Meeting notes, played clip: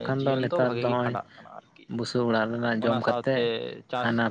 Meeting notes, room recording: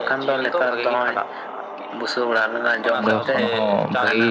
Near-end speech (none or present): present